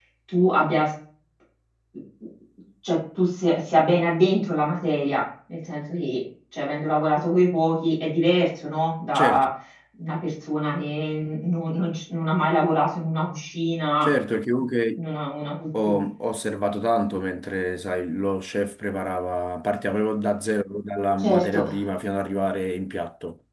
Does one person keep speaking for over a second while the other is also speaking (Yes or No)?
No